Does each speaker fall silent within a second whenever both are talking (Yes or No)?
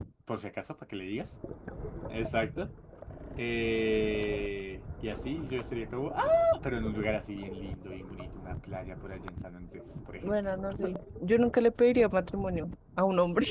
Yes